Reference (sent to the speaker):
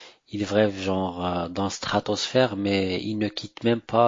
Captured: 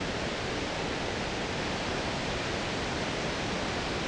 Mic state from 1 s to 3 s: neither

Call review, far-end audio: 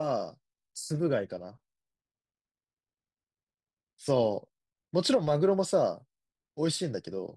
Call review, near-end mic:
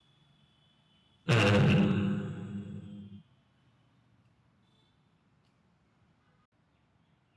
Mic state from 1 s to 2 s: user only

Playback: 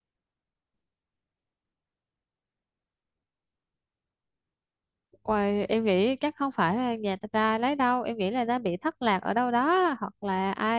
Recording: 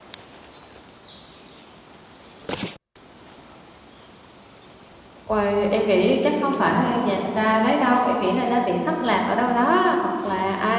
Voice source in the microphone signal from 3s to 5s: neither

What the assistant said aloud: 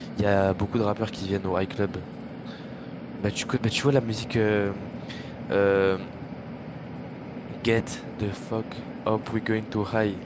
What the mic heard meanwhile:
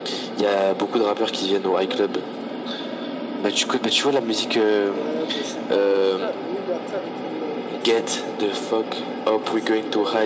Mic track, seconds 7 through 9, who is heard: both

